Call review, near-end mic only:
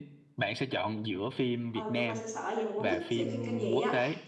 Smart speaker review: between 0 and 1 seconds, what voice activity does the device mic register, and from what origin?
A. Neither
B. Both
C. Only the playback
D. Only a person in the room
C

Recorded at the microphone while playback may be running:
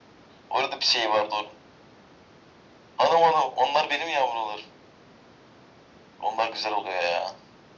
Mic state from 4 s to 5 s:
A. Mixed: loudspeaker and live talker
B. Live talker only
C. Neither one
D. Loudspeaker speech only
D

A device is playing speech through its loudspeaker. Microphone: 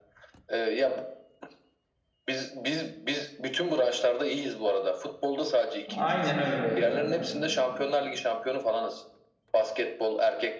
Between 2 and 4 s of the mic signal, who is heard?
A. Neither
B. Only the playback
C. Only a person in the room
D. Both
B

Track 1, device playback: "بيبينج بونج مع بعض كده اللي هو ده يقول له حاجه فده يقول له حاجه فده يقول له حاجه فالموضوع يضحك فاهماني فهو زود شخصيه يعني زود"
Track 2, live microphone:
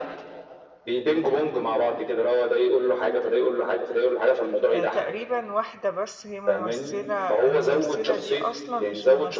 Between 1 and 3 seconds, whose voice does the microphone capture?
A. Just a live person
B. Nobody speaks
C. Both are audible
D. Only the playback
D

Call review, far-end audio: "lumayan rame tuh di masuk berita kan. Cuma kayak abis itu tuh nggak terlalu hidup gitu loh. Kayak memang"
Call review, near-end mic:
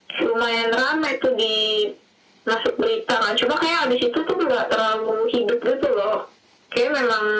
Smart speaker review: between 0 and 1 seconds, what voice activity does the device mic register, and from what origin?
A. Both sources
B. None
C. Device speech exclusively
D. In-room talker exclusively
C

